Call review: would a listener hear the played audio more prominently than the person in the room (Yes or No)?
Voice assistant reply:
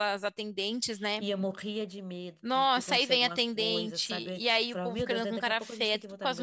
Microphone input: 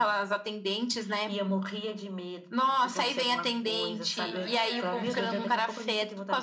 Yes